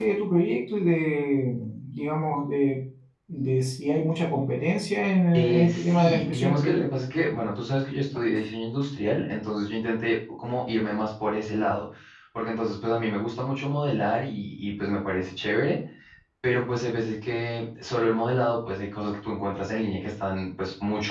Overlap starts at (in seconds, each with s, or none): 5.3 s